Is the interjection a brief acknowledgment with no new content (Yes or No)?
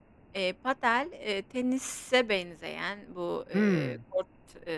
Yes